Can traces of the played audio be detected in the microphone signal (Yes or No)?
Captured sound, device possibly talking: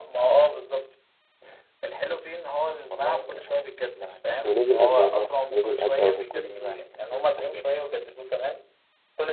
Yes